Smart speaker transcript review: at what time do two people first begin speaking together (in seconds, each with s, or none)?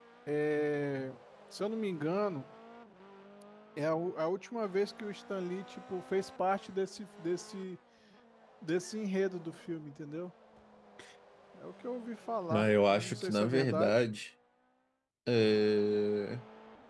12.5 s